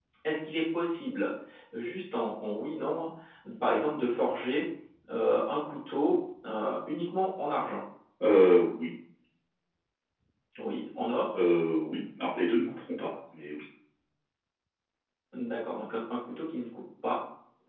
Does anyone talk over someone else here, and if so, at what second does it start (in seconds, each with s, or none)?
none